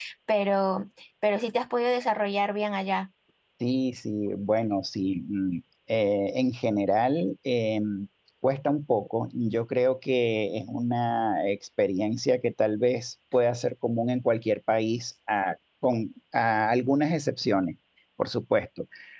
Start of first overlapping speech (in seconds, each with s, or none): none